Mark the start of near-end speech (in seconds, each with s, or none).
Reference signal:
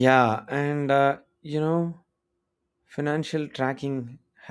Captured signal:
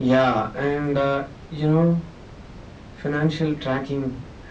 none